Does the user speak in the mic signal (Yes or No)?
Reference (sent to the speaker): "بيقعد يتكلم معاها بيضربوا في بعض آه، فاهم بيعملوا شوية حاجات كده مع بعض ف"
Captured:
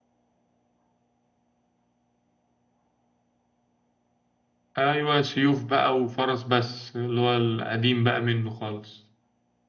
Yes